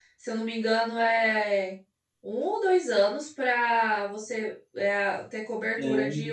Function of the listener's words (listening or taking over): listening